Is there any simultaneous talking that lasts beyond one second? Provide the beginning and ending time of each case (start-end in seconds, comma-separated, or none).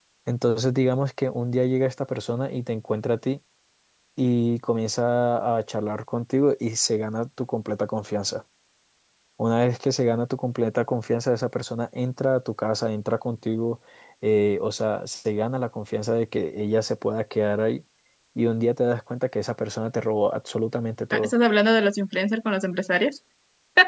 none